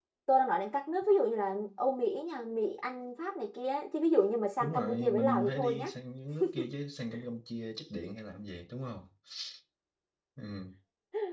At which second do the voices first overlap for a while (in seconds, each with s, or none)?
4.6 s